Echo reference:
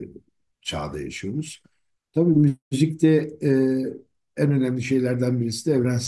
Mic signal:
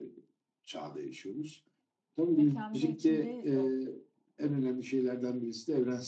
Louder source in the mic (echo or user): echo